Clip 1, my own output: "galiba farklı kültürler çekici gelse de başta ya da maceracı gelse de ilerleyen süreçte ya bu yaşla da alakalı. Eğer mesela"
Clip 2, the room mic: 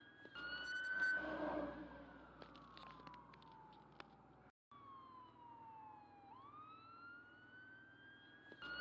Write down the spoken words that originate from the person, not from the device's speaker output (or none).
none